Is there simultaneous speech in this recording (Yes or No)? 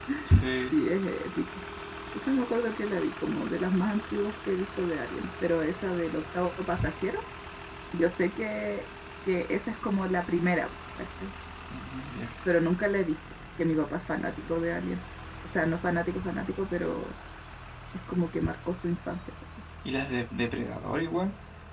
No